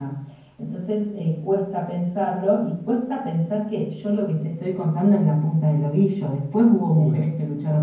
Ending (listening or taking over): listening